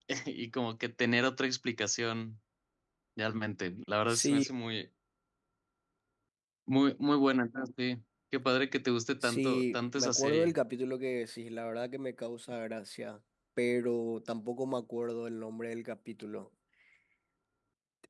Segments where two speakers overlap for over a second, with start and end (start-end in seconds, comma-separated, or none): 9.2-10.5